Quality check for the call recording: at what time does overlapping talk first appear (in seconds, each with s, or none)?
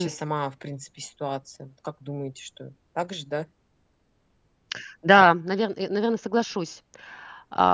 none